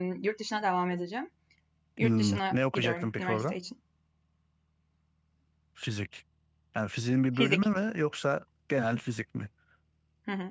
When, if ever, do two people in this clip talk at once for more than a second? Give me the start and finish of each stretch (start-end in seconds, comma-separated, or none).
2.0-3.5